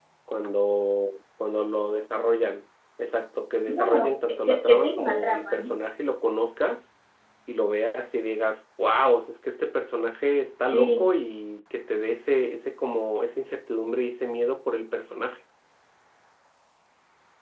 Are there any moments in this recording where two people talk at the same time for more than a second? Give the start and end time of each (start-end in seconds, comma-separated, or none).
3.8-5.7